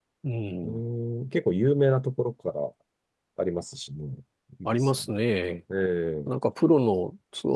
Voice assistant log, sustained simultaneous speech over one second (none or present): none